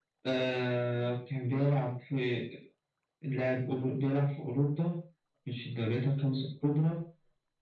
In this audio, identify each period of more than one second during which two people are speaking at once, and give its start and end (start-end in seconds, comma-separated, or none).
none